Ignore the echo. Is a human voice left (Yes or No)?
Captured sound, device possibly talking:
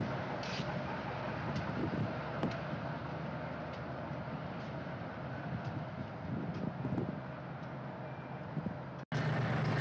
No